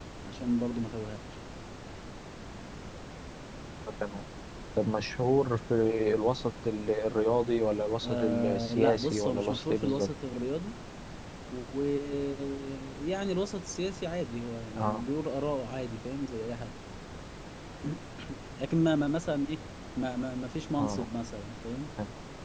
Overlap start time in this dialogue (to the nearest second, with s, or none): 8 s